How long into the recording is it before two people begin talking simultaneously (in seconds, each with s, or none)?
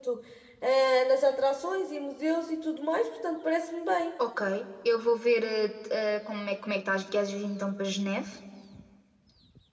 none